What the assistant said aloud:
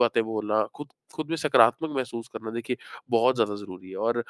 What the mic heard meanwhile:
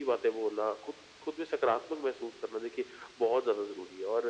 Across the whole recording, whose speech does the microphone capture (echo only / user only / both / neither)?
echo only